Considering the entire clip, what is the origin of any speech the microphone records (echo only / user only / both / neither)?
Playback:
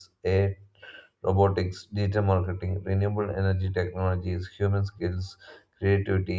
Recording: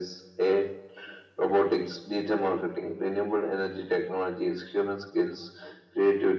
echo only